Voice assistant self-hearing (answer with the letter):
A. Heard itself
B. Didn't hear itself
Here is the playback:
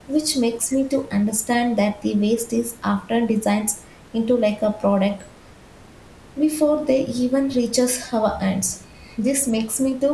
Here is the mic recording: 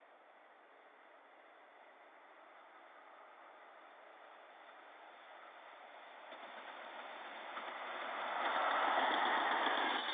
B